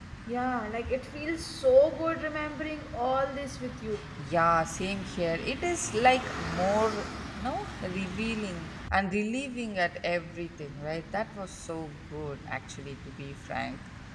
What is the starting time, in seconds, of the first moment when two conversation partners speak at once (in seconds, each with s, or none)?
none